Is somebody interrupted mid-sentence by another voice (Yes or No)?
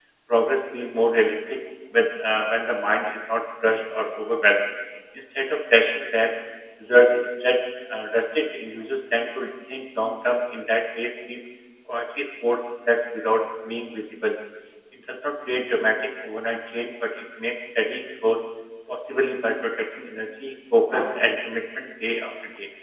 No